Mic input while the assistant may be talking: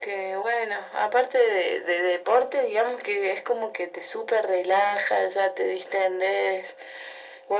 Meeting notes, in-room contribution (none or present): none